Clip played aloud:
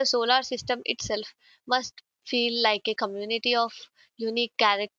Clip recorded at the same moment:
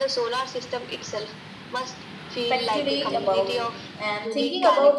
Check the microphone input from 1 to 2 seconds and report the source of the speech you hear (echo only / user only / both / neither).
echo only